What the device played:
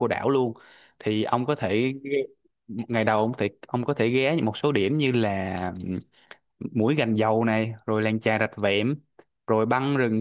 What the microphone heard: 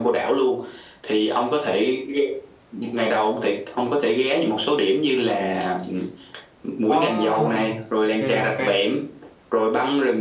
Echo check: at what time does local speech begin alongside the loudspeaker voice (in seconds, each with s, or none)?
6.9 s